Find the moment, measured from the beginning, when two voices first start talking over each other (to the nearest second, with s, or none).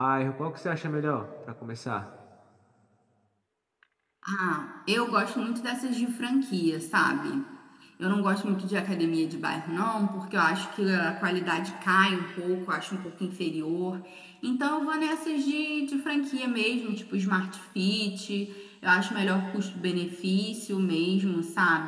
none